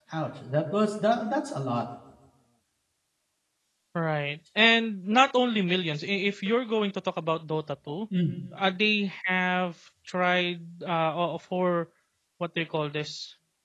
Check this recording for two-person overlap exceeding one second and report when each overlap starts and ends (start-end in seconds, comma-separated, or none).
none